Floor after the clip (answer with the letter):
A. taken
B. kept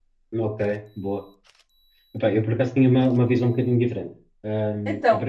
B